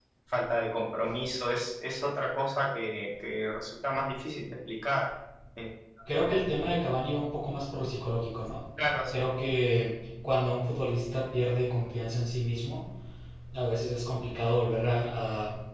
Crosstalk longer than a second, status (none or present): none